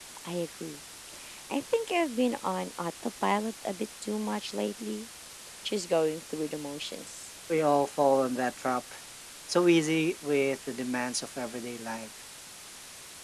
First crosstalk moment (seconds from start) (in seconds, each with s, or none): none